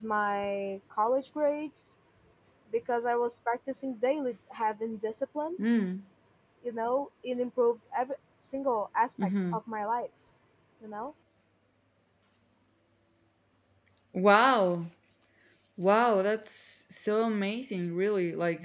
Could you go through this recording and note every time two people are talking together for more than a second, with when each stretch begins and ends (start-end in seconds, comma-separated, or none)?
none